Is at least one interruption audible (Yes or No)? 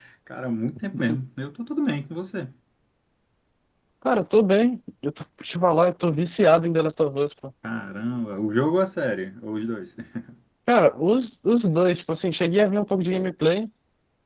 No